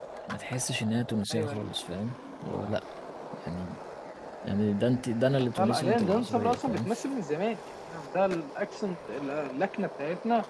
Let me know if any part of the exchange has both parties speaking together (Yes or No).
Yes